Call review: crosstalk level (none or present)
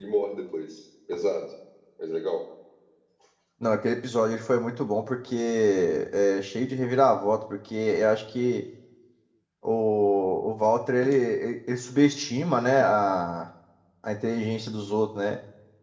none